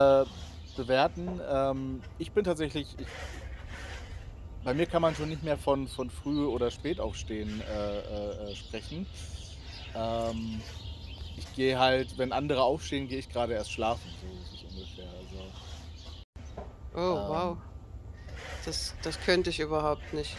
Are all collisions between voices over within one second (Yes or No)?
Yes